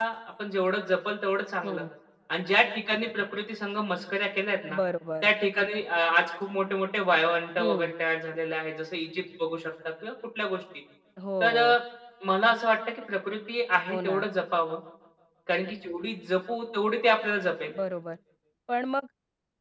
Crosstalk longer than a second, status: none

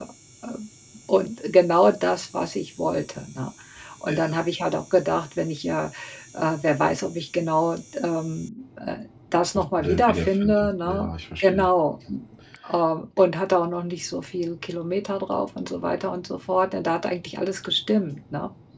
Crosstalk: present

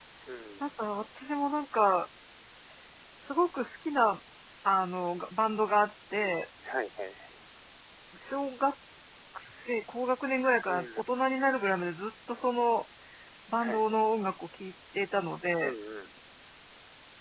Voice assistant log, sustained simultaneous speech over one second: none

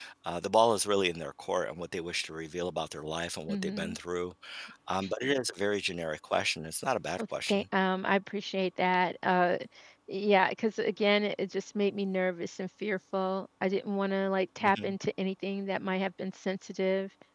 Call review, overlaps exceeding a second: none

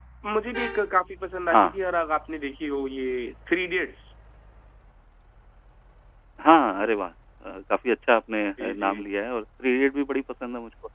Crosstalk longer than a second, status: none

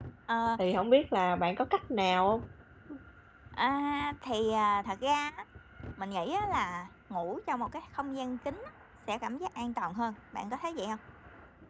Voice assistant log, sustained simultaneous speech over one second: none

